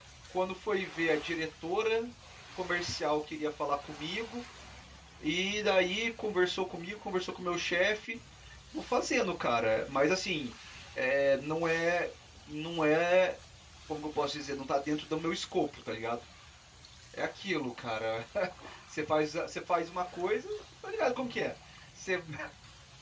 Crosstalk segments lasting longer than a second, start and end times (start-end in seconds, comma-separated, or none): none